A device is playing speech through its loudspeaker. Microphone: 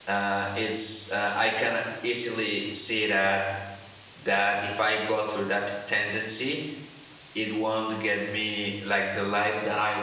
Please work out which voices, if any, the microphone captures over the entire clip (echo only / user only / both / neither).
user only